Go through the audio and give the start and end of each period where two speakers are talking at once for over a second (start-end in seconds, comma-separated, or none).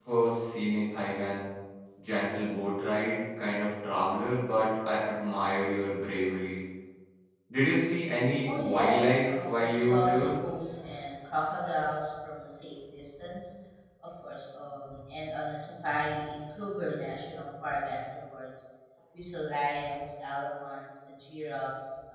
8.5-10.3